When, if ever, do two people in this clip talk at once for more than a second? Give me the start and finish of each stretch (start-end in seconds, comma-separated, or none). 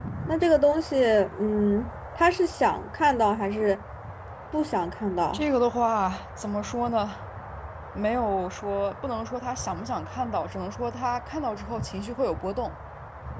none